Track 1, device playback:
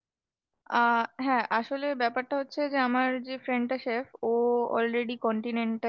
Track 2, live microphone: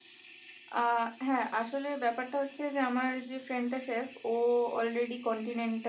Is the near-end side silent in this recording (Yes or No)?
Yes